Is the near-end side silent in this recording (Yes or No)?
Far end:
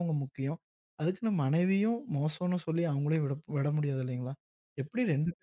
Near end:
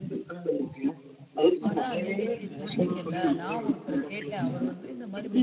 No